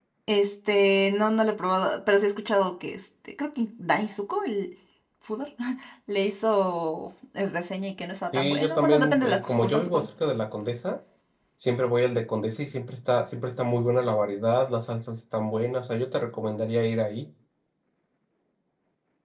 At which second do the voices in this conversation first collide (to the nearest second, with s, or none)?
8 s